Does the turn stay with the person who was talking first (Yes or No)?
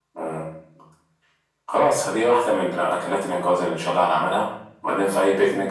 Yes